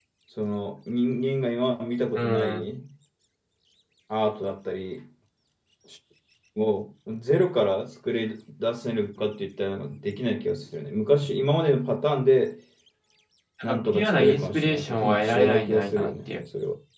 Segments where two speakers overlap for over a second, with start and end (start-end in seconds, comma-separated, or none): 13.6-16.3